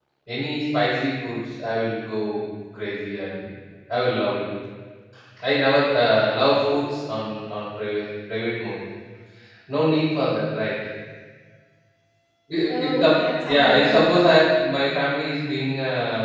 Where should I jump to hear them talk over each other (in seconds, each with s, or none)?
12.7 s